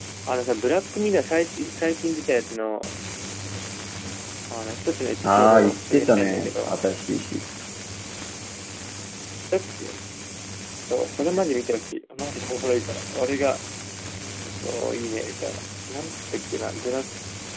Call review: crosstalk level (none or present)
present